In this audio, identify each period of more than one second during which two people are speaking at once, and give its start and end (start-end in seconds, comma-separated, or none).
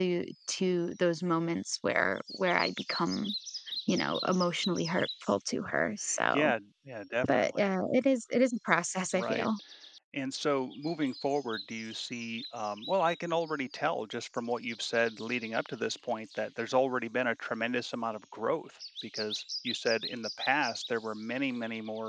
none